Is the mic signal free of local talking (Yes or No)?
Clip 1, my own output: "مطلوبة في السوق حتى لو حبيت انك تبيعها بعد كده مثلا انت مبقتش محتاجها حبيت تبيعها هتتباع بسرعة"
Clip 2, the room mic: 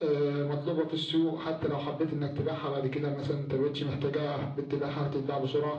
Yes